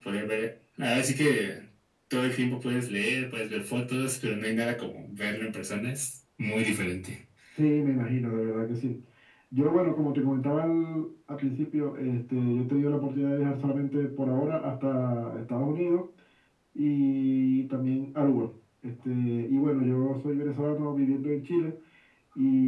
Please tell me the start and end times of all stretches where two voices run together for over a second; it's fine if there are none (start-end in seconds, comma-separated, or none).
none